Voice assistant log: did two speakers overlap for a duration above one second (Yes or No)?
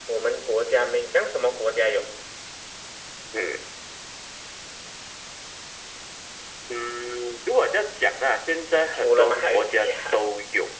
Yes